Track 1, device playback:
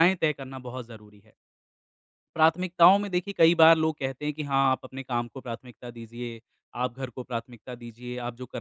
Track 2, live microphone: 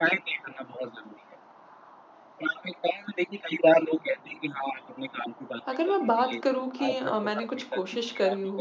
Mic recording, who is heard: both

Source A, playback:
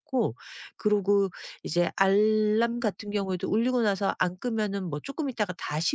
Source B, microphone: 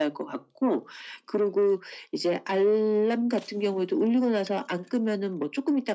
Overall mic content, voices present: echo only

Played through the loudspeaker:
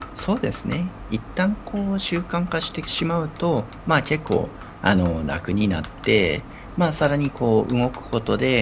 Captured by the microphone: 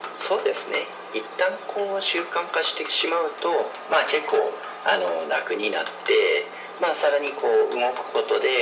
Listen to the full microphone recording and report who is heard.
echo only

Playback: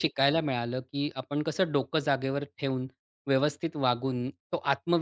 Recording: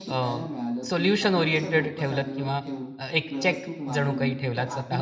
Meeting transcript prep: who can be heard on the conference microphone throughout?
both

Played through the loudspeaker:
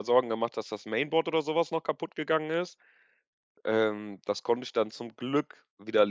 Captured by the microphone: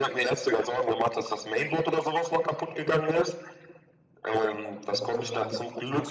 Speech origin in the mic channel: both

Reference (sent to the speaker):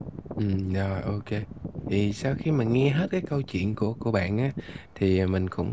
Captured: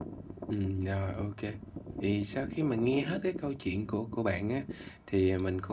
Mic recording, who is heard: echo only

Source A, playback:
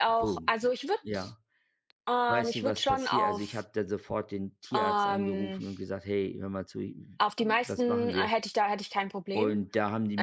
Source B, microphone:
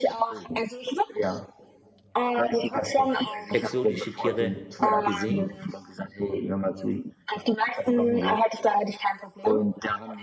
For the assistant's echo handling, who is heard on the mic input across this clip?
both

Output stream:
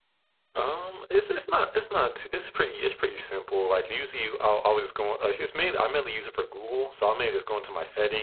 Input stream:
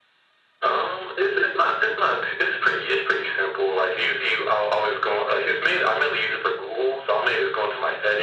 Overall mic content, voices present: echo only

